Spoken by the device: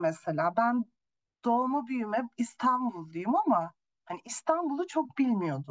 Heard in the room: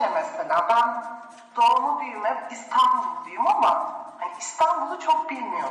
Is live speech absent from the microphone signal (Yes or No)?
Yes